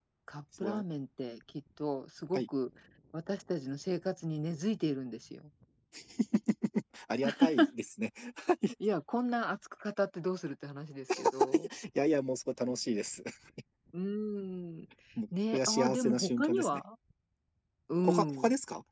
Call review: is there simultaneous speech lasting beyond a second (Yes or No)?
Yes